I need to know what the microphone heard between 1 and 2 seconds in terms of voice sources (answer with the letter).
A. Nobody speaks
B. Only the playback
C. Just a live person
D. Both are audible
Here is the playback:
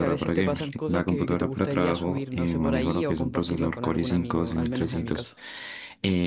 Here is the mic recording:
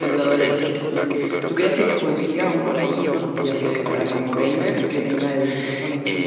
D